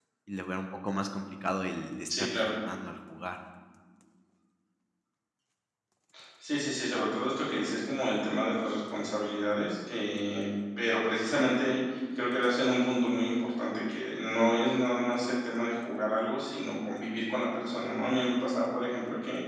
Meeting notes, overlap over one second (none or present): none